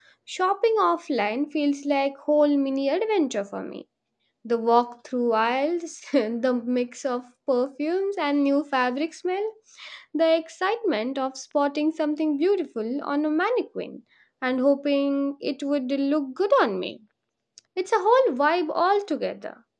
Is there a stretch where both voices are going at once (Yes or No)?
No